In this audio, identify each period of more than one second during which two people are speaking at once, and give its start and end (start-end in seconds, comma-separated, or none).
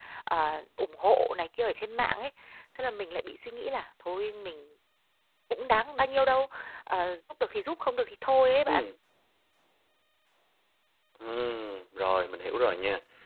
none